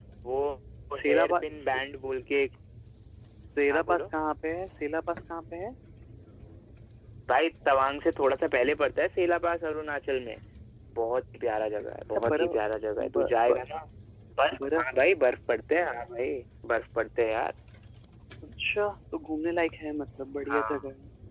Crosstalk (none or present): present